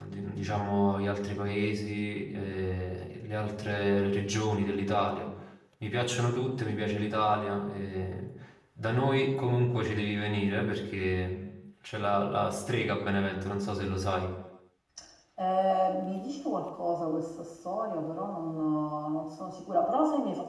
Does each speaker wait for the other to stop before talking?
Yes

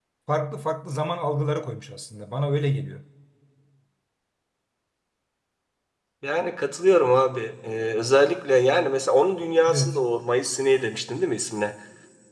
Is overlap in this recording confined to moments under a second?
Yes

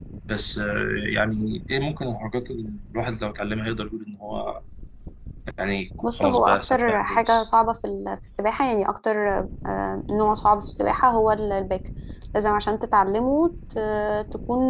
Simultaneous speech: Yes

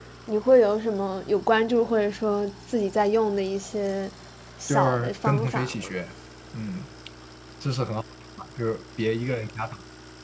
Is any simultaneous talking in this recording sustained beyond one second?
Yes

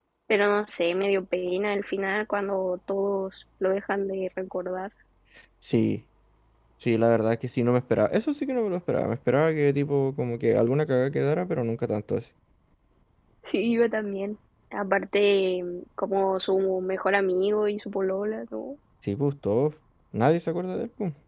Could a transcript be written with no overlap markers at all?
Yes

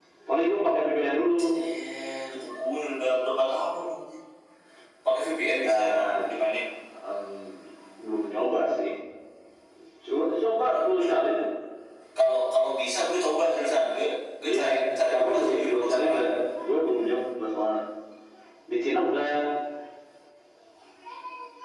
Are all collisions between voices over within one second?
No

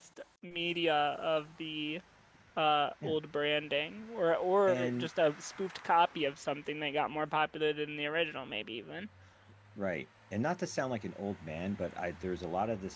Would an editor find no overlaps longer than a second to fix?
Yes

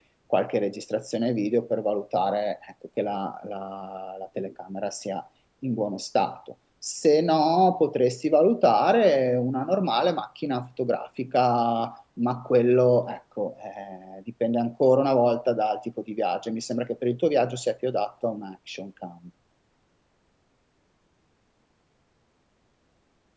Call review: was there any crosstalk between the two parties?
No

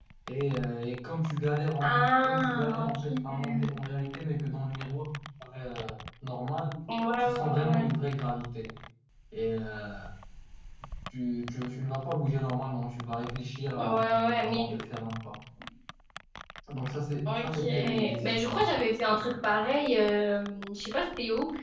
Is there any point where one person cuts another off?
Yes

